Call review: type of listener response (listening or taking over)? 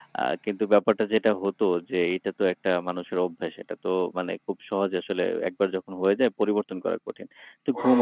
listening